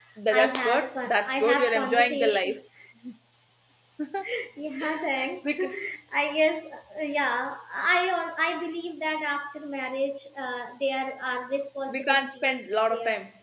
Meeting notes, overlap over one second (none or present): present